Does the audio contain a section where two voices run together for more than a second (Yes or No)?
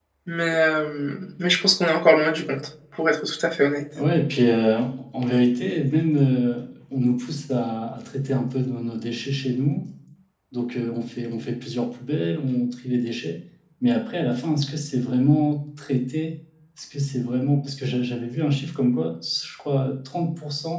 No